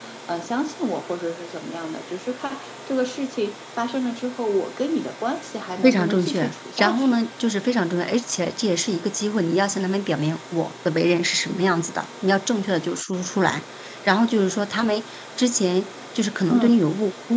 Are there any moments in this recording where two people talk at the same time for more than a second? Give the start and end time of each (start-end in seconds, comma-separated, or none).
5.8-7.2